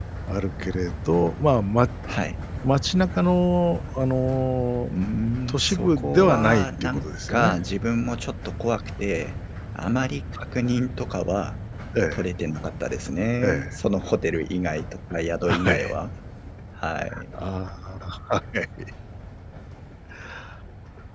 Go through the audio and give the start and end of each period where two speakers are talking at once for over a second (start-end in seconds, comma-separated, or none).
5.5-7.5